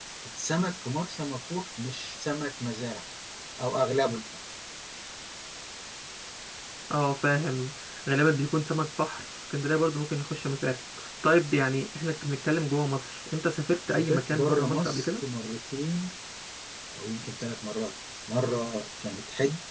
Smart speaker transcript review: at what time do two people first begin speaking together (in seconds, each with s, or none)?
13.9 s